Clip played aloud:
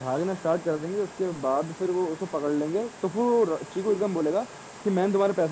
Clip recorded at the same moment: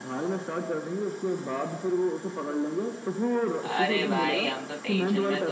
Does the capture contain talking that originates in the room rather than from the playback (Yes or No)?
Yes